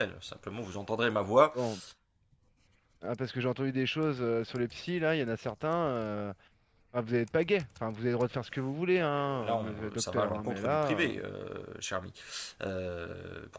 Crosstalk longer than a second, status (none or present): present